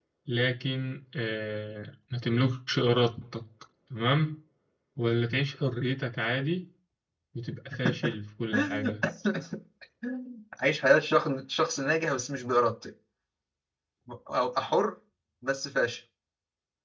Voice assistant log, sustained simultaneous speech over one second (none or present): none